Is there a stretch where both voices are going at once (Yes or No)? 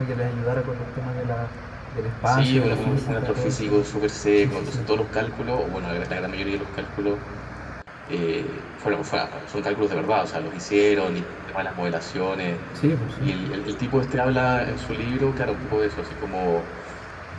Yes